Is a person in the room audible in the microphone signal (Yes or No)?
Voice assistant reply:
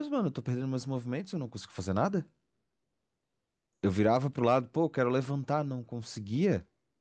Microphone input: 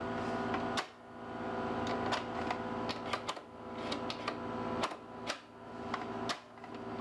No